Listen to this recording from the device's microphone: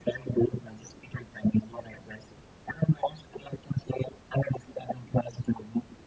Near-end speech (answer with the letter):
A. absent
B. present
A